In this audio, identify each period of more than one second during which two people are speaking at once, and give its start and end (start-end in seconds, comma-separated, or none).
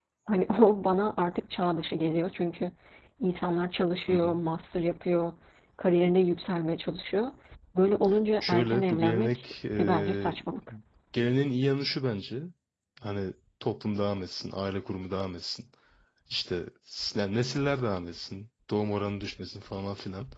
8.4-10.4